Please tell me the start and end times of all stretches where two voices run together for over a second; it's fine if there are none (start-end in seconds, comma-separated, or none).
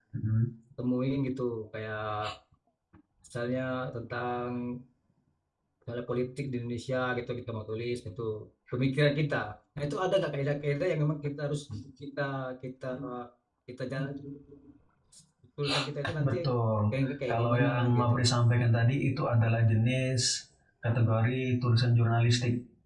16.9-18.1